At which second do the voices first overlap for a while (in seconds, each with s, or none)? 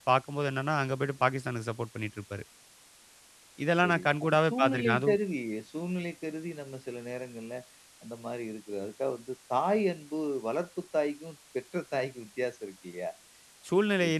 3.8 s